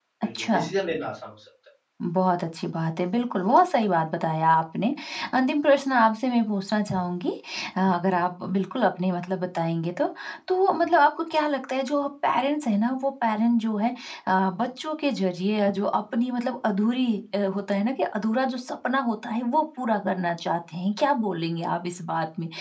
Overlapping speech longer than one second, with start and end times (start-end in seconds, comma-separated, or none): none